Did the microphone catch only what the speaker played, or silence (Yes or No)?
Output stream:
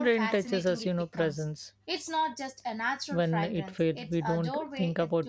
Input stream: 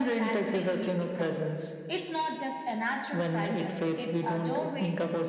Yes